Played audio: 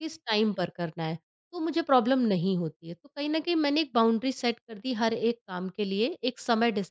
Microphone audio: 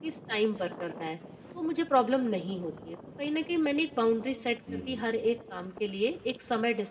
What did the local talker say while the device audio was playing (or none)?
हुँ, हुँ।